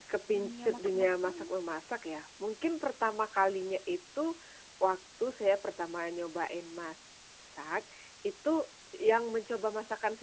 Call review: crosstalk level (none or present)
present